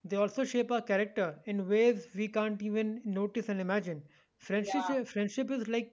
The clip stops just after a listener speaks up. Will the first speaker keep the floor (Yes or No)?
Yes